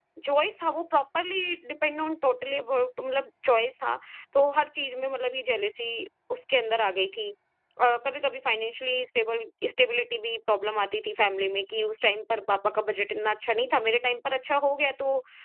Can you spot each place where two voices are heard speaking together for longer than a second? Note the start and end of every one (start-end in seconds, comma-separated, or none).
none